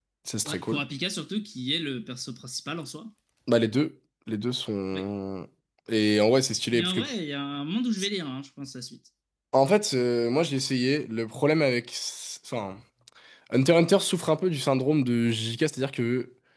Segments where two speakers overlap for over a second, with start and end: none

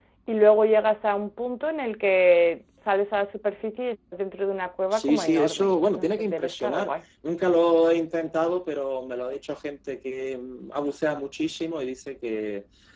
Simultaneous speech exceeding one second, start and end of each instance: 4.9-6.9

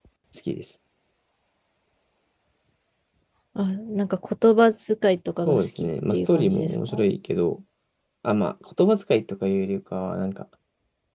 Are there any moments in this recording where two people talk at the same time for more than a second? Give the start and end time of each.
5.5-6.9

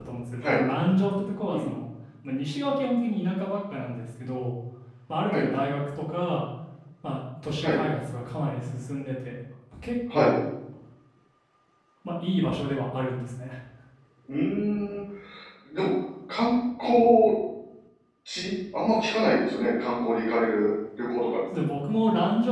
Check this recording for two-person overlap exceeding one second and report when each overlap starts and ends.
none

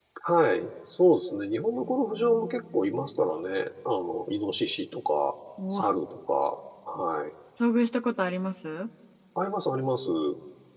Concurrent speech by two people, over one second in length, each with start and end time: 1.8-3.0

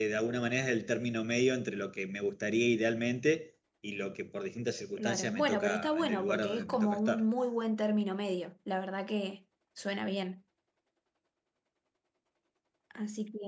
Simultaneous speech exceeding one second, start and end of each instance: 5.0-7.2

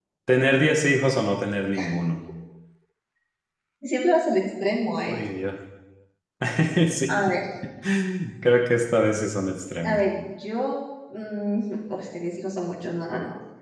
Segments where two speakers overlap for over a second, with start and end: none

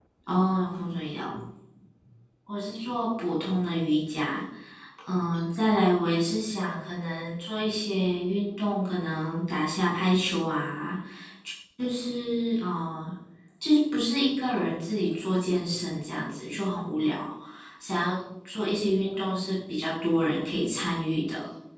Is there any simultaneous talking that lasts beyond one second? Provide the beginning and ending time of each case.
none

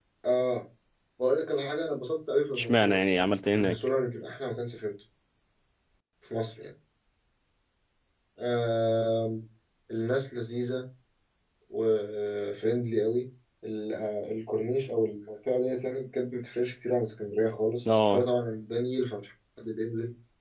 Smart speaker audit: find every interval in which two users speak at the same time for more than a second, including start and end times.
none

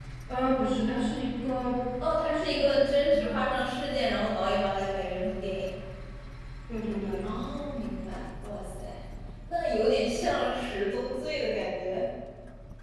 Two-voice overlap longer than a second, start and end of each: none

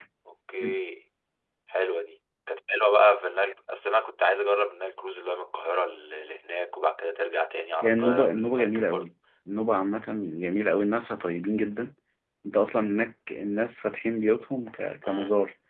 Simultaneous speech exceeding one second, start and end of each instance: 7.8-9.1

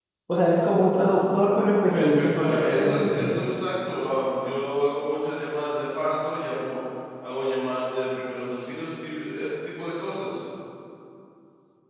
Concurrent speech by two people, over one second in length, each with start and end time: 1.9-3.3

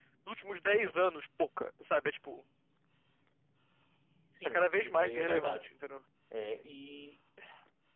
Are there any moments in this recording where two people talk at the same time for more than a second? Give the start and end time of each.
4.4-5.7

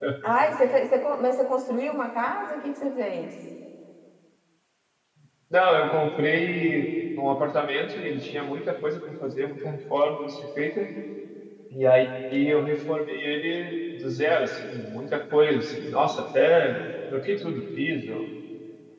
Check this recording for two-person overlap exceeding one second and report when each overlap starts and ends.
none

